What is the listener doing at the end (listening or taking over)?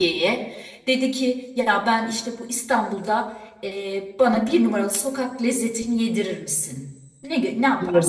taking over